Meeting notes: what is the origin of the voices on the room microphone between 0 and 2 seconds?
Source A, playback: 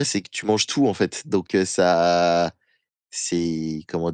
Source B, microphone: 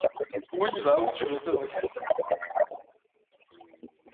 both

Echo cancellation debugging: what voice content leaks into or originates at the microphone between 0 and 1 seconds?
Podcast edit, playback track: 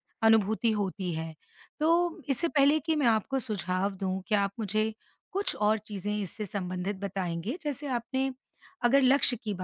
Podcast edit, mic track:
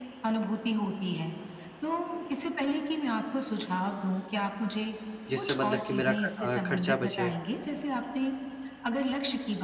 echo only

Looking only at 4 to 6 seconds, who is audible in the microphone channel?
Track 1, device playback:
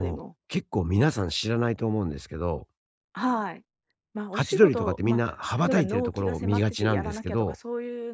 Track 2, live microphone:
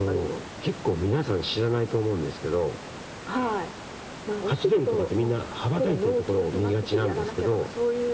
echo only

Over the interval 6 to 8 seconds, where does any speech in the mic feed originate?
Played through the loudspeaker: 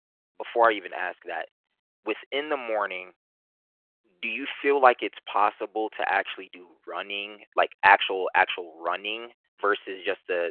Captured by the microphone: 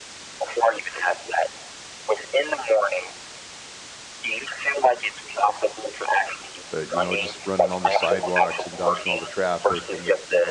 both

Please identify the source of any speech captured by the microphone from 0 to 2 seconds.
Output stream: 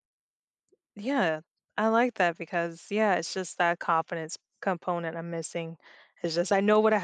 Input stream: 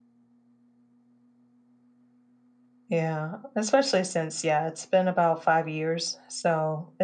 neither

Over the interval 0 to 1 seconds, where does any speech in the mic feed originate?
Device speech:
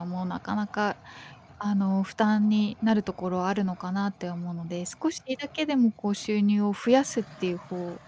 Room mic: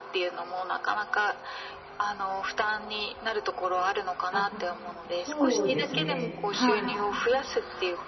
echo only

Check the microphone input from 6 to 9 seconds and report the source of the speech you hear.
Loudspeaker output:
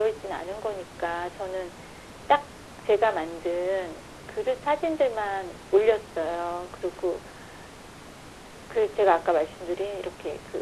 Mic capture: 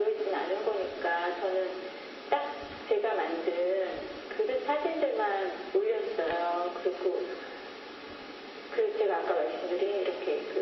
echo only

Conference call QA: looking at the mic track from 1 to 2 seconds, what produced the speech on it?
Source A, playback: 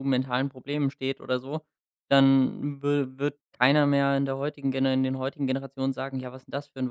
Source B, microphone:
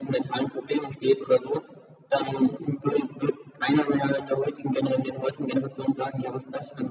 echo only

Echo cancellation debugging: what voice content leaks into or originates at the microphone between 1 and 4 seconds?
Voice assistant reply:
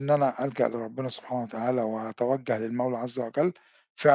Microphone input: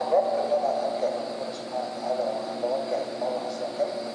echo only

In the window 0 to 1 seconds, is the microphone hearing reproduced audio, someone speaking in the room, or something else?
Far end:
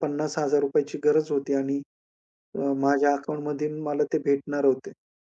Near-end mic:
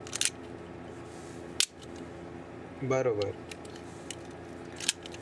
neither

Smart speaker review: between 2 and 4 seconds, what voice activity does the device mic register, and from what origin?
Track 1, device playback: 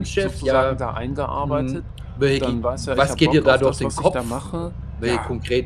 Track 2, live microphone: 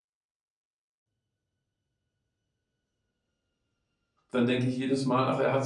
neither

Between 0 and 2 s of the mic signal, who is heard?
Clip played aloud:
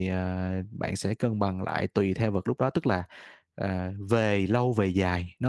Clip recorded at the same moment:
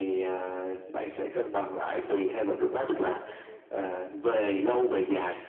echo only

